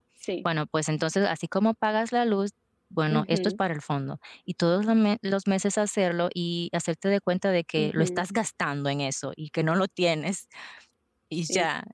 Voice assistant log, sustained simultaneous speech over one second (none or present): none